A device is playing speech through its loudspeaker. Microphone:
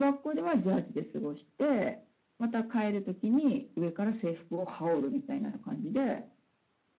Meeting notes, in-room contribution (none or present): none